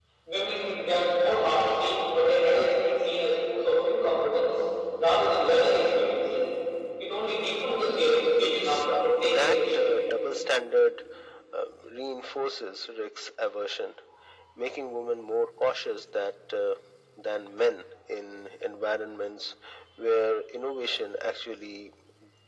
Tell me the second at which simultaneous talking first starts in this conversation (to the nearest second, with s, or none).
9 s